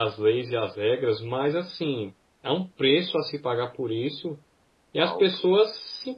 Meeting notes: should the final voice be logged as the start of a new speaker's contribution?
No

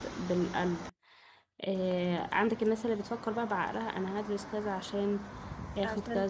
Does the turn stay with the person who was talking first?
No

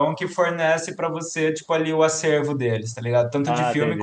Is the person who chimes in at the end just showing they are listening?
Yes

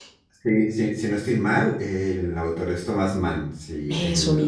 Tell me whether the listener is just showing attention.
Yes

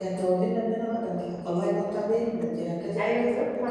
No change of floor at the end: No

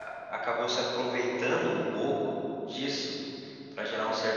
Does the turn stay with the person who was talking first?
Yes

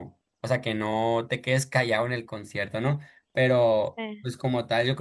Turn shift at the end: No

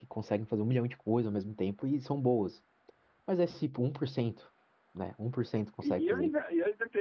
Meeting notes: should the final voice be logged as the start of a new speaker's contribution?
Yes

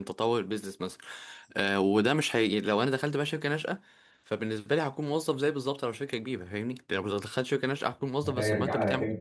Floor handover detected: Yes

